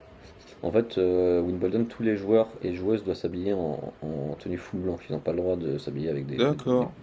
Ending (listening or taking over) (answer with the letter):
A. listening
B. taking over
B